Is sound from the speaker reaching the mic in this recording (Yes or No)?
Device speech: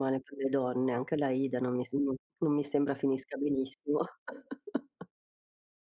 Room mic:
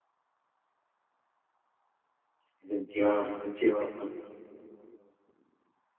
No